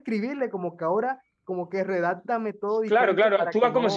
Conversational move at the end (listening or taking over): taking over